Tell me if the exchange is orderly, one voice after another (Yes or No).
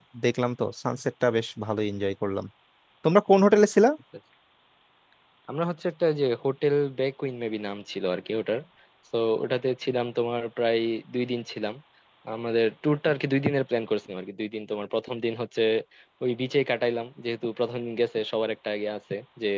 Yes